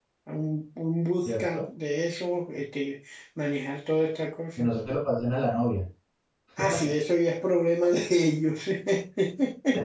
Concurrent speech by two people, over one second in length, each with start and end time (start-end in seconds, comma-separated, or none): none